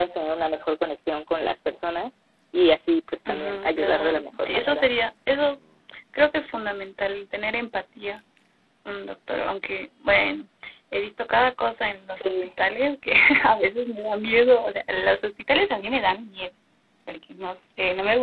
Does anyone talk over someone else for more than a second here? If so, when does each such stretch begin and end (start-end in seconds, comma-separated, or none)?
3.3-4.8